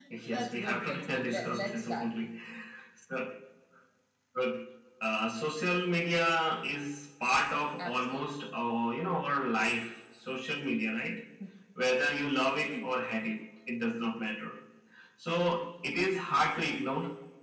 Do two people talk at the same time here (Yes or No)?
Yes